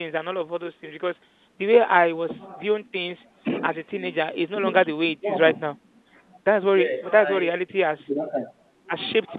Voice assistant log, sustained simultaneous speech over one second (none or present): present